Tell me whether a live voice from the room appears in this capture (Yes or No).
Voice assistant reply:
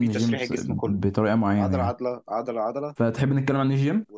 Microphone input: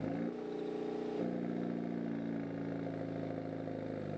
No